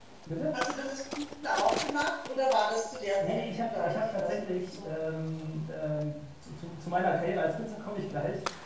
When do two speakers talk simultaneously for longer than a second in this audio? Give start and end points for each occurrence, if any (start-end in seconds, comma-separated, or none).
3.3-4.9